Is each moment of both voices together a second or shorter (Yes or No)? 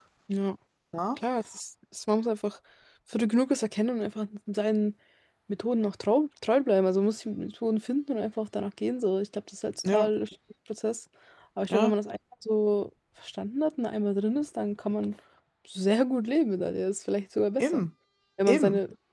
Yes